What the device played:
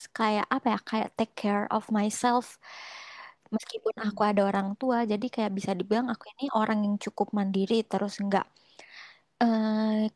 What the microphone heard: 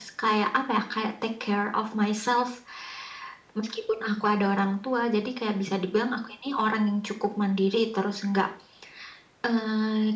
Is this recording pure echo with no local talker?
Yes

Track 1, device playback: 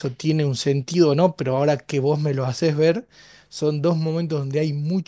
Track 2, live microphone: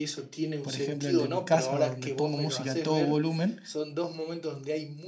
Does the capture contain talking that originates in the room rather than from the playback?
Yes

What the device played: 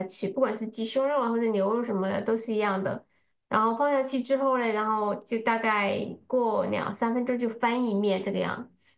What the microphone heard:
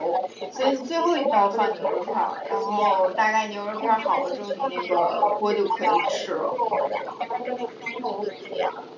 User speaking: Yes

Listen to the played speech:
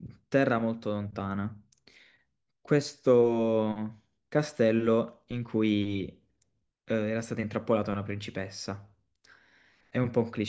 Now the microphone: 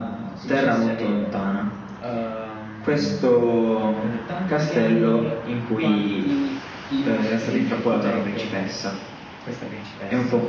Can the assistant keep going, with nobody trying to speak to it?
No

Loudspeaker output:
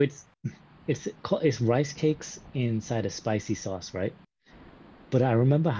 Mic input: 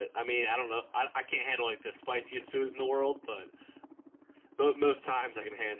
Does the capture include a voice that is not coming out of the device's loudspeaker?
Yes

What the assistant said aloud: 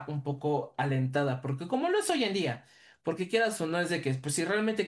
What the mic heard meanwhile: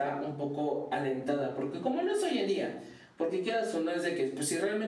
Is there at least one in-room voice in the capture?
No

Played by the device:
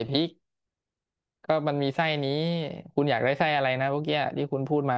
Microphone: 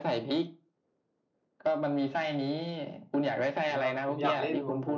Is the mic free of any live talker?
No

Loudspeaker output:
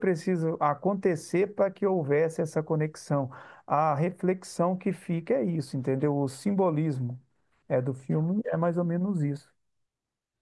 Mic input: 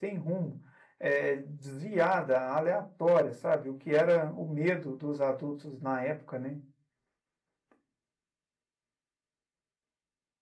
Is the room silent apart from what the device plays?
No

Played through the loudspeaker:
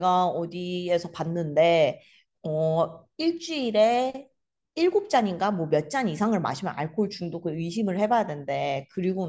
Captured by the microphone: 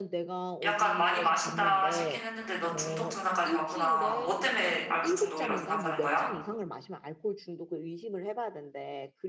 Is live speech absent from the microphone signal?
No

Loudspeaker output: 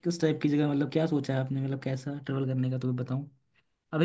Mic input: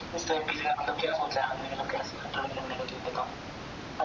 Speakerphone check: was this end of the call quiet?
Yes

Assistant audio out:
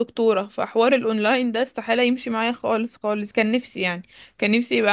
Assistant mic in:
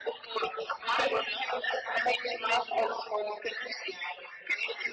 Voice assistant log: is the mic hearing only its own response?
Yes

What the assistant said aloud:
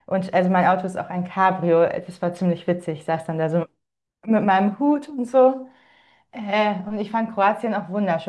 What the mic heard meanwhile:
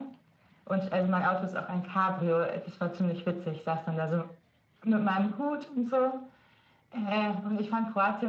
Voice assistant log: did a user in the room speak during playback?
No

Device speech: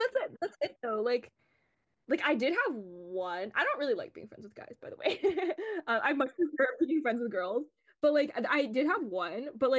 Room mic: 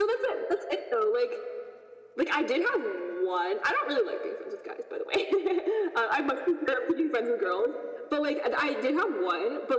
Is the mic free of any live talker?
Yes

